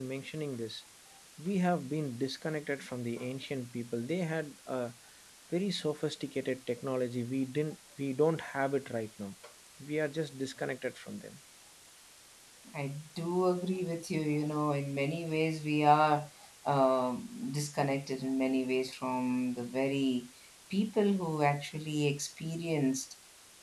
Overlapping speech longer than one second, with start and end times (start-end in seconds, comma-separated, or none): none